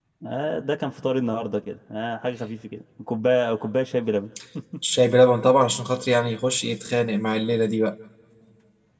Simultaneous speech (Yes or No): No